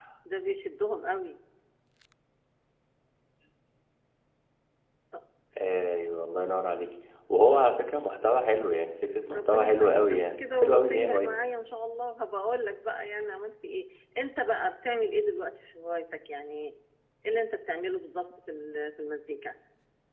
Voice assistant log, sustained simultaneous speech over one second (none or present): present